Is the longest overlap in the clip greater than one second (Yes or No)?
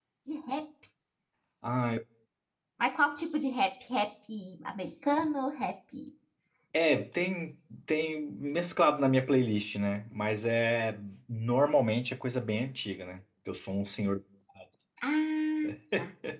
No